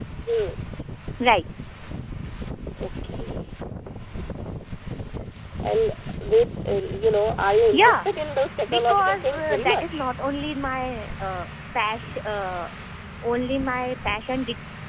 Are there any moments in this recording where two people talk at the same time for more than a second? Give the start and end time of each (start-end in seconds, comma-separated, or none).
8.7-10.0